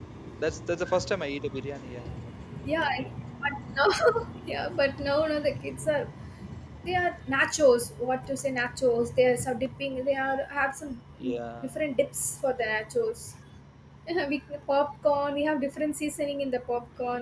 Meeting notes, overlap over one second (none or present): none